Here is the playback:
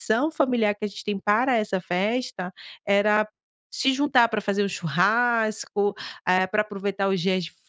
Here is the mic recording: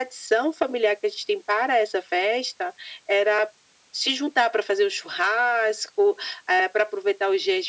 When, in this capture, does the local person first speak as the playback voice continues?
none

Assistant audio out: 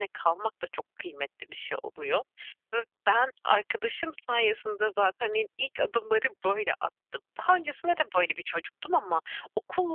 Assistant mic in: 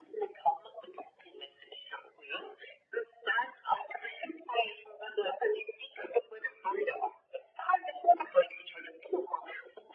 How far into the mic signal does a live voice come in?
none

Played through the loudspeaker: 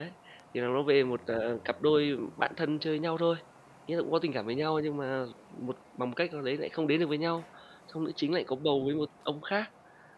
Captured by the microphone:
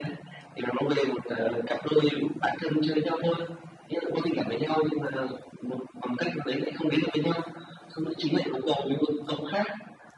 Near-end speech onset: none

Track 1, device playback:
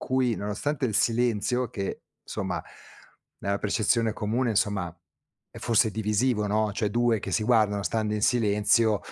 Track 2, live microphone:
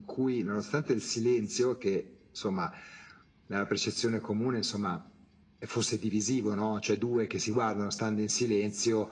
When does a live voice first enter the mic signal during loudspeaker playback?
none

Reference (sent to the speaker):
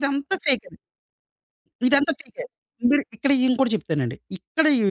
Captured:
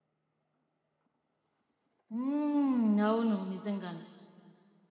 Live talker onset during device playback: 2.1 s

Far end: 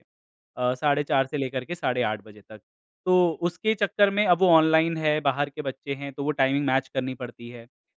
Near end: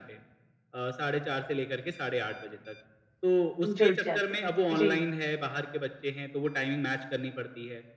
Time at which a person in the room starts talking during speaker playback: 3.6 s

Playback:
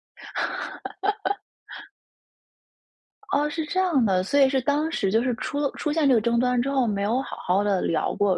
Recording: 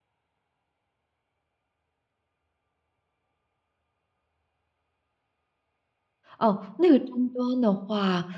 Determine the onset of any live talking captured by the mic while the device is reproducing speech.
6.4 s

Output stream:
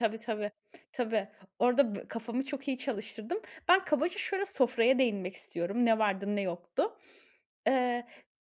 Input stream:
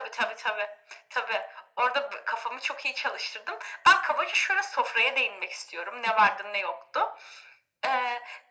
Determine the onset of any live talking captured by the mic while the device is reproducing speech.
none

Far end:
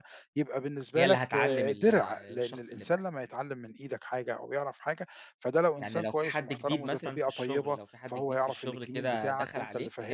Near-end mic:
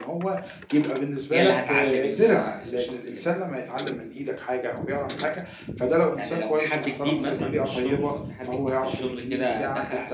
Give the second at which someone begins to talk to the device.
none

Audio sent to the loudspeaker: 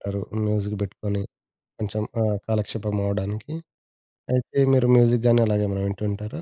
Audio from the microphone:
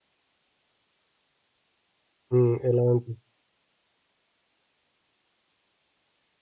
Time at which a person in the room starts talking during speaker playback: 2.3 s

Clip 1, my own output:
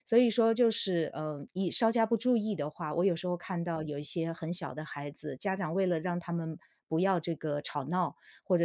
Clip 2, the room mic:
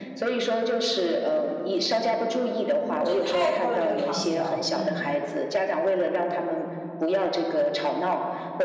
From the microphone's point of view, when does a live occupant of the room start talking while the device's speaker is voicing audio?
3.0 s

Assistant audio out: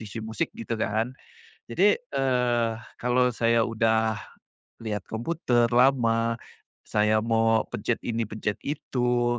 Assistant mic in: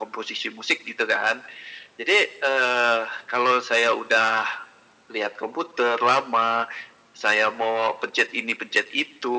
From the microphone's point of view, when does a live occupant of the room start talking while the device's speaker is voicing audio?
none

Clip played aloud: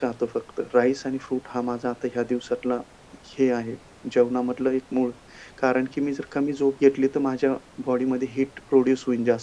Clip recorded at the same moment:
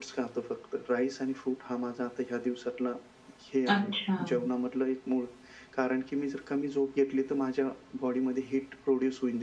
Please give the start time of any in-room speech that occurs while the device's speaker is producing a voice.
3.7 s

